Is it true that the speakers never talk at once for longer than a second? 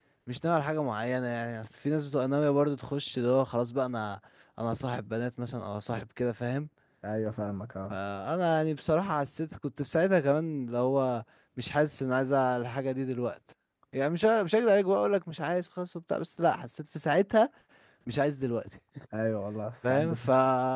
Yes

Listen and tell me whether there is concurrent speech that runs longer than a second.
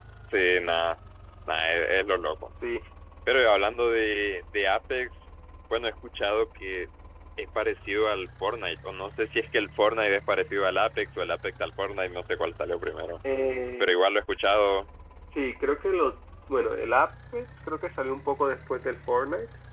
No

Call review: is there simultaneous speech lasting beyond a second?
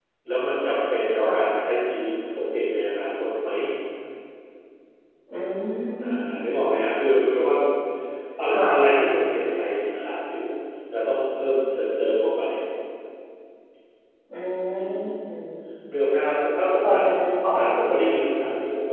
No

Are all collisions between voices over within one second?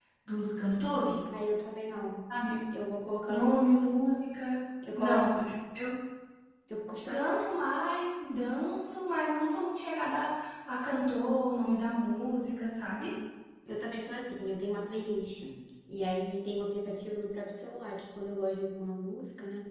Yes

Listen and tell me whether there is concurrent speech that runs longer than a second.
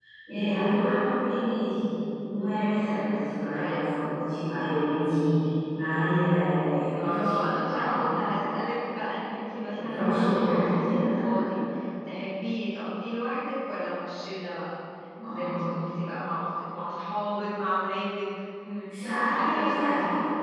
Yes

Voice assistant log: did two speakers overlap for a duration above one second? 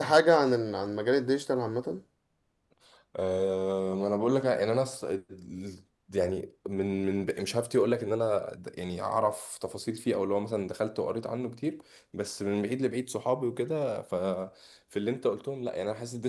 No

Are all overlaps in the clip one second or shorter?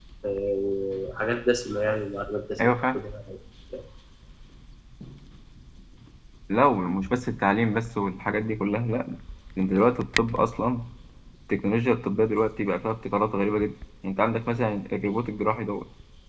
Yes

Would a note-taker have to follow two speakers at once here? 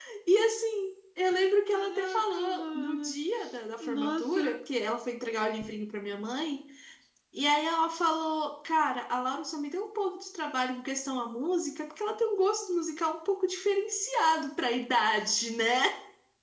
Yes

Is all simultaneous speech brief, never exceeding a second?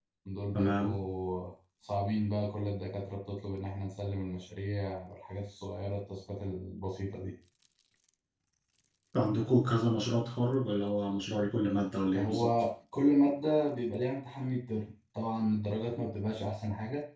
Yes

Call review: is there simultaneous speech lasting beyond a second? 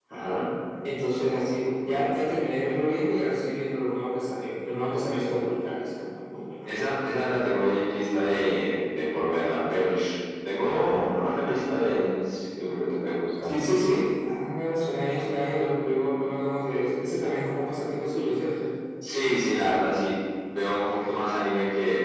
No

